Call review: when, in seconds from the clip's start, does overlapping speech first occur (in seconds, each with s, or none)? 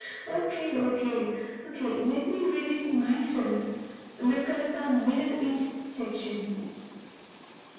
none